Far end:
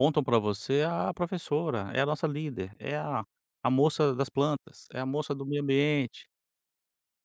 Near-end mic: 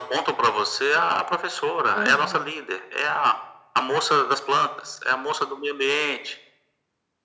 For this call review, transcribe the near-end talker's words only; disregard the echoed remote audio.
Aham,

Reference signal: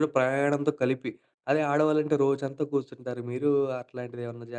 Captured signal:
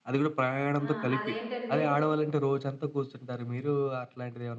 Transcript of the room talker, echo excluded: ఆ! అదేంటంటే

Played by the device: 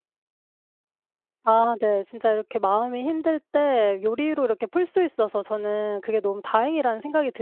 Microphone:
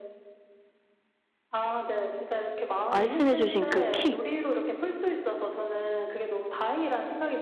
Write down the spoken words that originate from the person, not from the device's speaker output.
말씀해 주신 그 킥

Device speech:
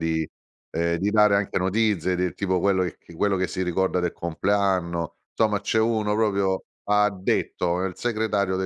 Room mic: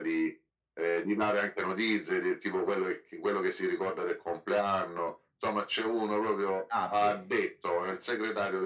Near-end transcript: Ah bene, eh.

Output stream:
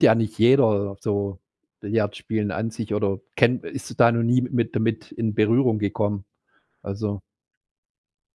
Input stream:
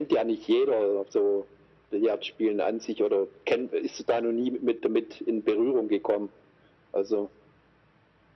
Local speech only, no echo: none

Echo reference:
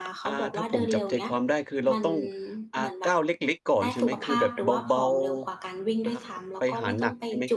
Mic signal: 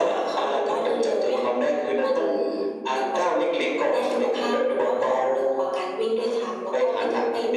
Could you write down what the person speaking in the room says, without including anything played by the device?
none

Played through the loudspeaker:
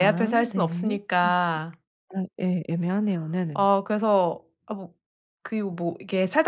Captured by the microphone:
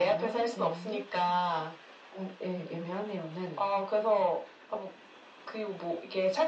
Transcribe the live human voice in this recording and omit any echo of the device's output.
none

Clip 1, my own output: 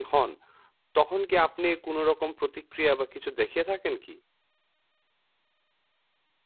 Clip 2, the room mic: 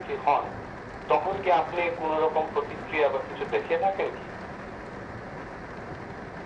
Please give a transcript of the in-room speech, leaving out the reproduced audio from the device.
none

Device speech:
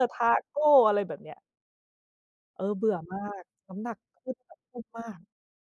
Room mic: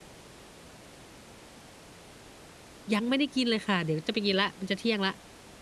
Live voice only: ยังไม่ได้กินเลยค่ะ เดี๋ยวจะไปกินแล้ว มันจะเที่ยงแล้ว

